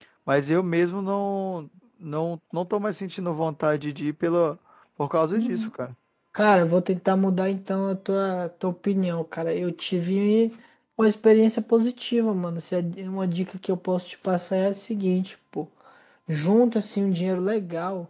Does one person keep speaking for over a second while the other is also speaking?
No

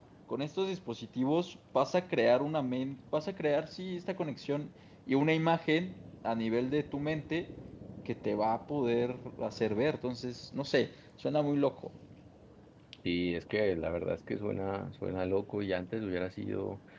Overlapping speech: No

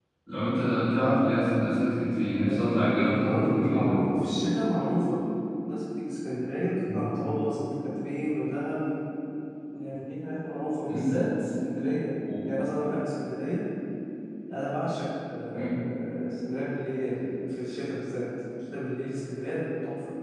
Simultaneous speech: Yes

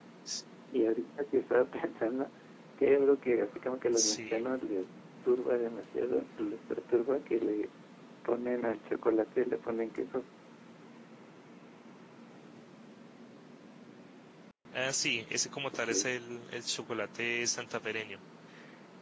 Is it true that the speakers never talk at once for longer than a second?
Yes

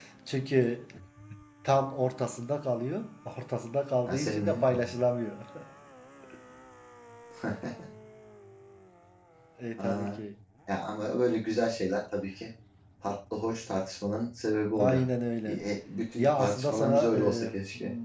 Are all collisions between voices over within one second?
No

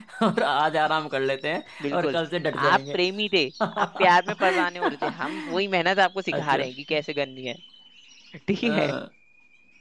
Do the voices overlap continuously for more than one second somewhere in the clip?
Yes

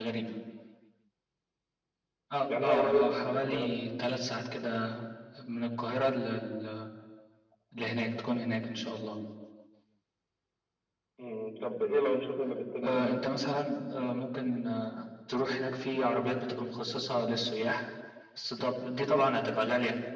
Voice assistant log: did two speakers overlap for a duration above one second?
Yes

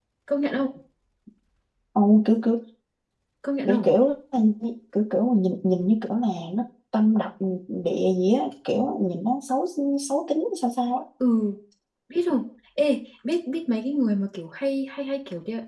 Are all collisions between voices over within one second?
Yes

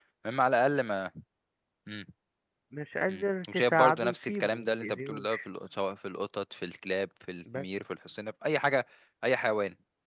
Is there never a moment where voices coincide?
No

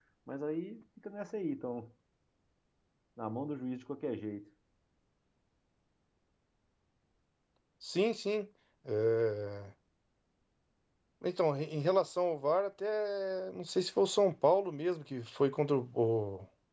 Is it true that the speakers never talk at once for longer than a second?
Yes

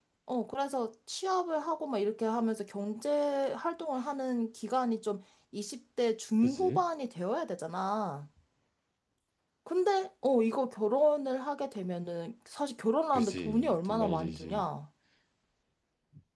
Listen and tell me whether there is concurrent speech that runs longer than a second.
Yes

